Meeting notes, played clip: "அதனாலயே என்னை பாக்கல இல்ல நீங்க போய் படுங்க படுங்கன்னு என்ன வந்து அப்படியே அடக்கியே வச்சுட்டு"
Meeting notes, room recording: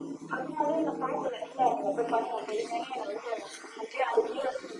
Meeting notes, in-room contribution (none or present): none